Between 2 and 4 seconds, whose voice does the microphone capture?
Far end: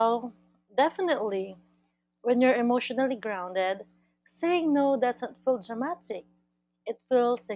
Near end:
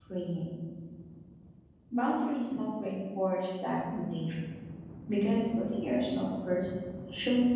user only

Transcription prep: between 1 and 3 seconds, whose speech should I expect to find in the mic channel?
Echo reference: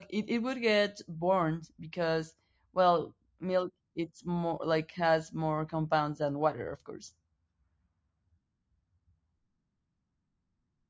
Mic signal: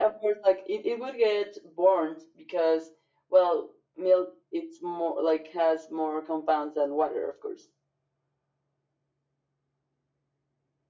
echo only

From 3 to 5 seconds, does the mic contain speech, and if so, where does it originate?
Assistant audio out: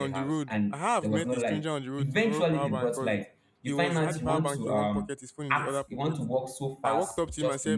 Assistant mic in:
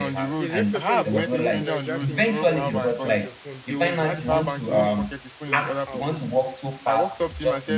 both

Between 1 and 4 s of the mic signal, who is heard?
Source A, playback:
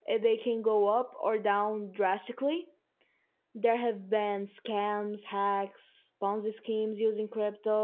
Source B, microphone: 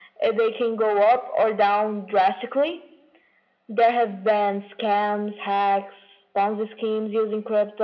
echo only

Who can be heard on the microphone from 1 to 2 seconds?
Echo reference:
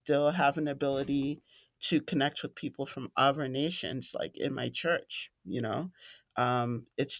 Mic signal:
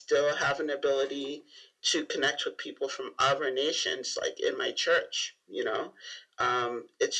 echo only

